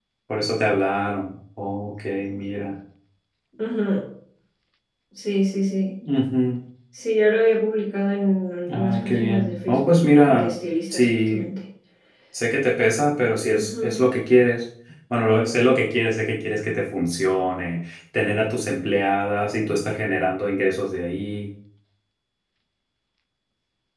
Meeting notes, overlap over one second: present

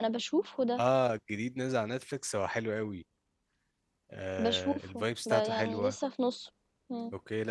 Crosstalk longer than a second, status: present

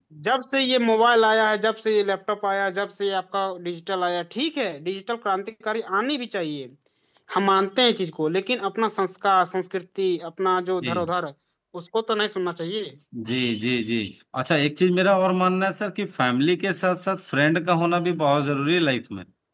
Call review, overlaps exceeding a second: none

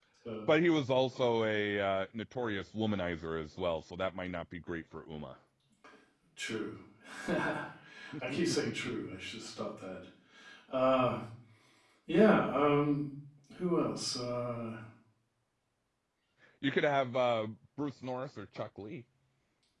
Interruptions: none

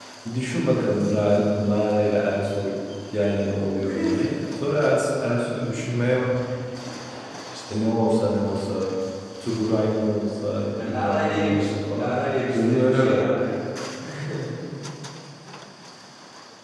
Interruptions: present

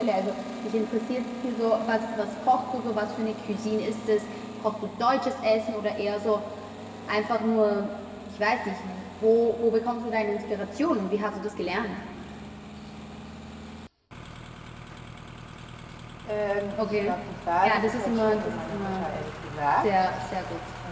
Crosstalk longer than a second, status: present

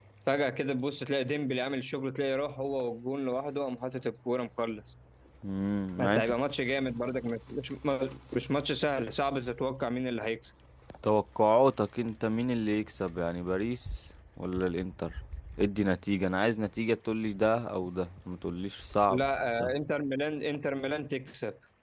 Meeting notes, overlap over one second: none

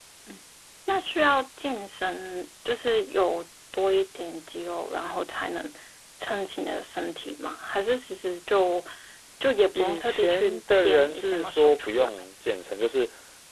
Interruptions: present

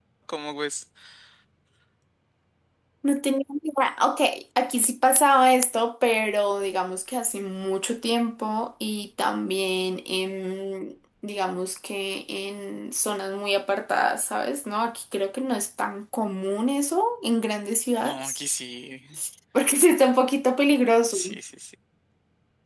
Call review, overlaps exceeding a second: none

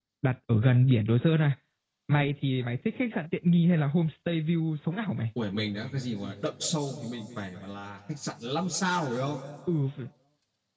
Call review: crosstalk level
none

